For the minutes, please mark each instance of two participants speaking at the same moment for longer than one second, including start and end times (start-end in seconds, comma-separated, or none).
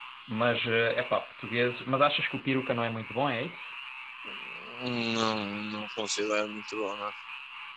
none